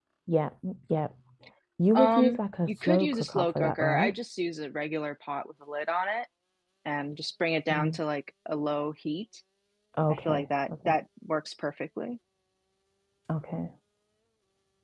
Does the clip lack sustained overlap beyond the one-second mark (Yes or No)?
No